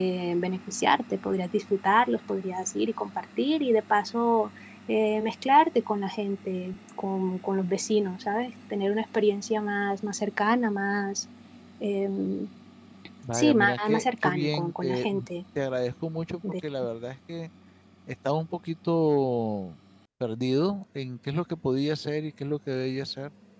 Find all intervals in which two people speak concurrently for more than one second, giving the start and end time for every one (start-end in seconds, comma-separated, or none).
13.3-15.1